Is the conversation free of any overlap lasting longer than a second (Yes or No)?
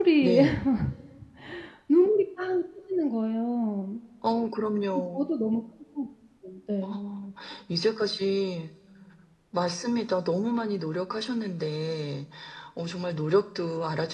Yes